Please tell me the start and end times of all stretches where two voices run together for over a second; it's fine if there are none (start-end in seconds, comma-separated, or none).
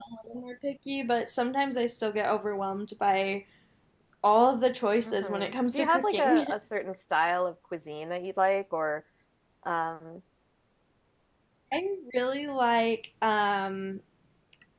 5.0-6.5